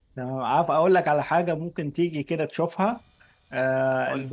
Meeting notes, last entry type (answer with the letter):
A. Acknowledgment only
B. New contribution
A